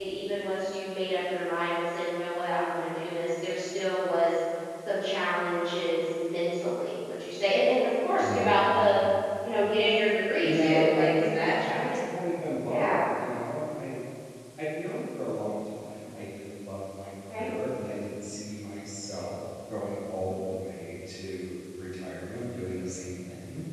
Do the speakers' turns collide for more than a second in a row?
Yes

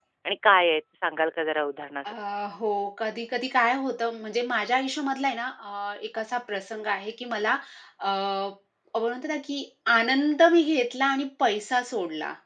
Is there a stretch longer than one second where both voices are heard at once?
No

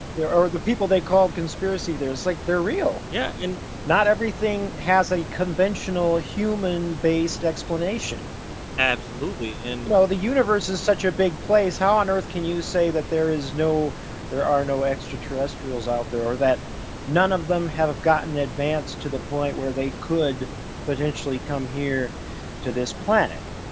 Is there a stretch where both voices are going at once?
No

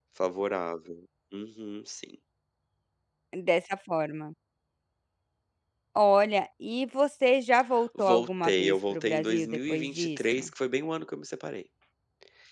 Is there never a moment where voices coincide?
No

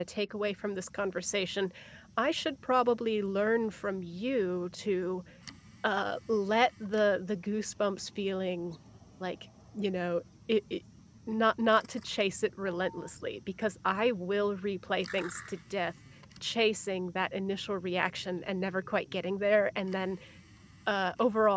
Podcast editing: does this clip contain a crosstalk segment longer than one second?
No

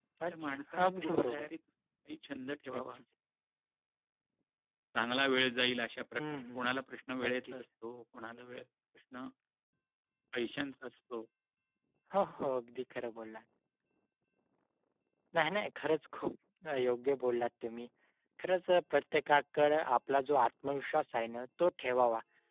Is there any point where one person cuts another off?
Yes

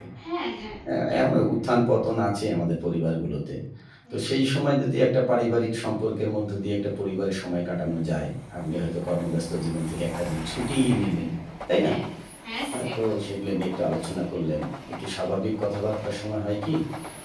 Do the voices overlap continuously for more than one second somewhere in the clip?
No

